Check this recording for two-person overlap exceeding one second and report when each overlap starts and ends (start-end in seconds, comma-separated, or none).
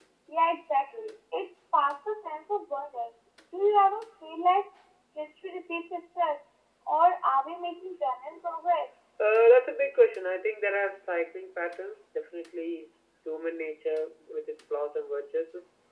none